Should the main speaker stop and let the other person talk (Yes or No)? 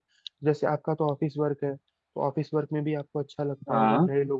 No